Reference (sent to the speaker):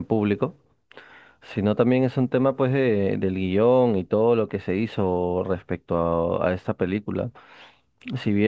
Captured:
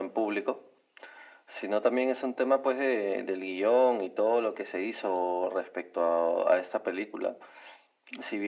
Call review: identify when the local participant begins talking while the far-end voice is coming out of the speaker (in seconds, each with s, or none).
none